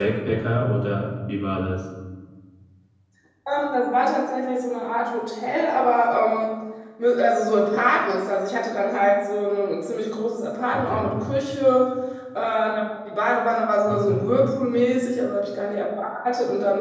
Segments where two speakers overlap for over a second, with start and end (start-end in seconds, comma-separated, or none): none